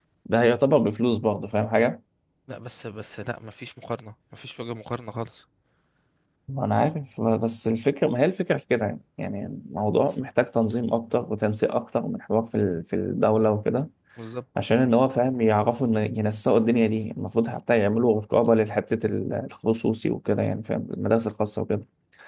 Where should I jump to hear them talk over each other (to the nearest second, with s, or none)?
none